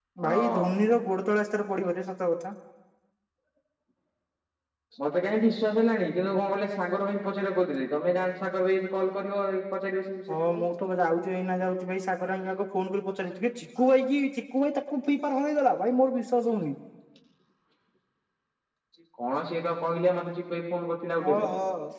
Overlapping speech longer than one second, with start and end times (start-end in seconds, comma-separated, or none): none